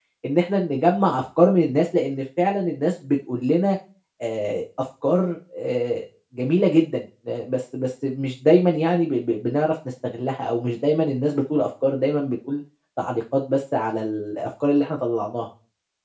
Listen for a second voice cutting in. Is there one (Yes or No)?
No